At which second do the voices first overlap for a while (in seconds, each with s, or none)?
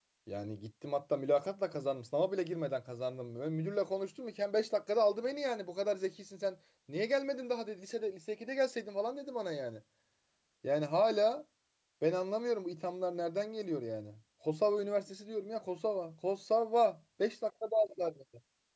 none